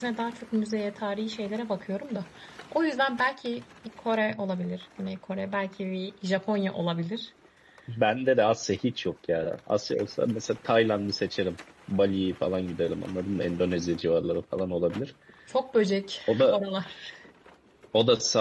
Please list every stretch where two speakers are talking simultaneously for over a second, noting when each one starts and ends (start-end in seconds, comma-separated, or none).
none